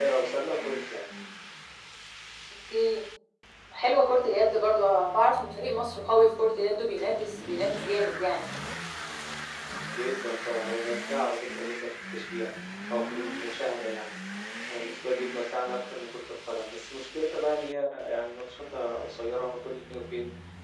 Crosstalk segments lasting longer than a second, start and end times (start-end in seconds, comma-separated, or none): none